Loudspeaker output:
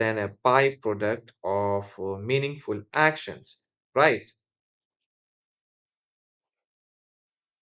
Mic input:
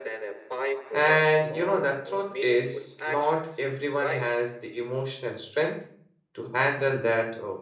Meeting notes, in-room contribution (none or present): present